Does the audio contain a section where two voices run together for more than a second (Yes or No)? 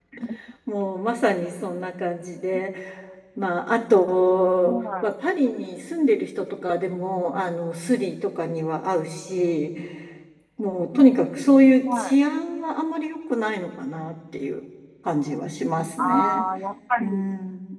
No